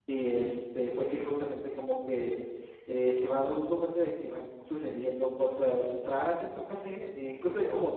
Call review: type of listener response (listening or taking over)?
listening